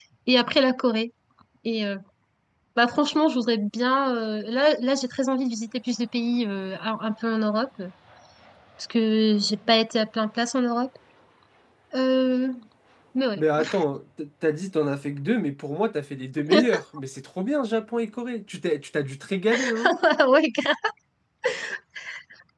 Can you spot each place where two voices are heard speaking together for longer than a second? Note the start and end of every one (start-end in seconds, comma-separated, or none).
none